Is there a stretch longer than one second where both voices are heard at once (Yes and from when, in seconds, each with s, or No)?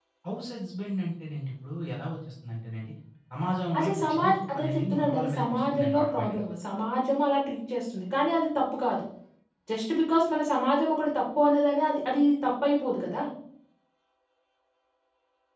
Yes, from 3.8 s